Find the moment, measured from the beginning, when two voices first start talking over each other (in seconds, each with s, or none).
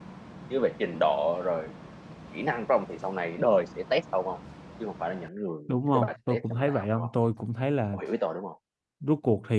5.7 s